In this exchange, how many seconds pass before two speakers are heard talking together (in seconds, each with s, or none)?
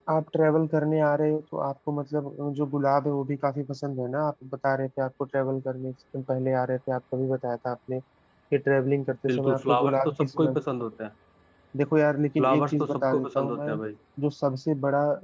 9.3 s